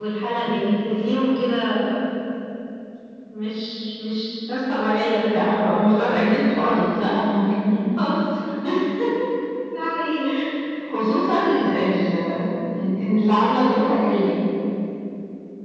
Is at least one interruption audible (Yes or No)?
Yes